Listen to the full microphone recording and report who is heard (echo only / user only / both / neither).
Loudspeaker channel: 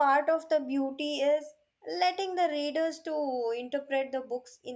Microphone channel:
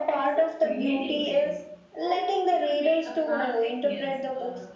both